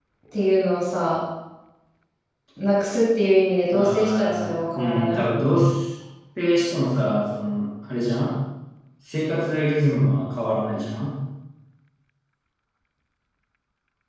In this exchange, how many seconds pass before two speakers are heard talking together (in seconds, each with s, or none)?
3.7 s